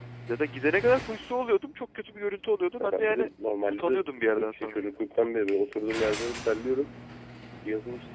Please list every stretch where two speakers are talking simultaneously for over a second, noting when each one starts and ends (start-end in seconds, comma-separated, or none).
3.7-4.9